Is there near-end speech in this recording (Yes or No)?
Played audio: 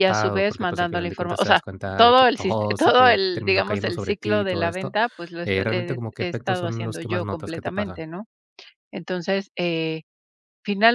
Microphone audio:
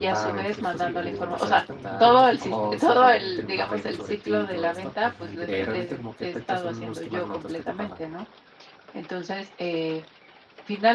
Yes